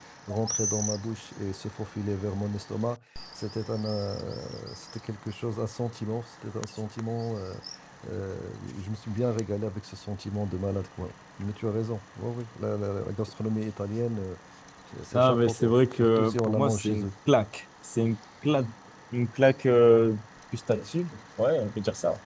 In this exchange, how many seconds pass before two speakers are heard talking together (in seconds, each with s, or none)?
15.1 s